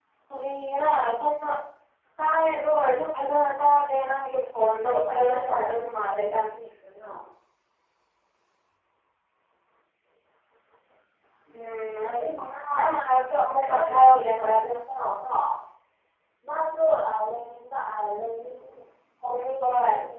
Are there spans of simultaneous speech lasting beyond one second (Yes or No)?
Yes